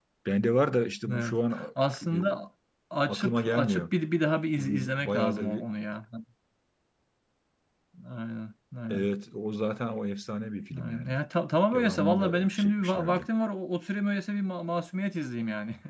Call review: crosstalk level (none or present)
present